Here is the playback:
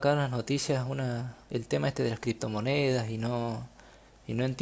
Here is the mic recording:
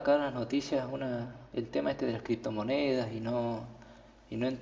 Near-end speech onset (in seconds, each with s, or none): none